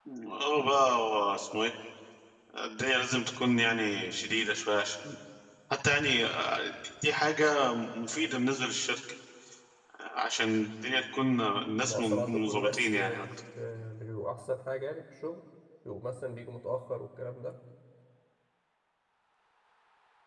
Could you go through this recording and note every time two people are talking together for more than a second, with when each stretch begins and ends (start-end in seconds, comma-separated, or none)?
11.8-13.3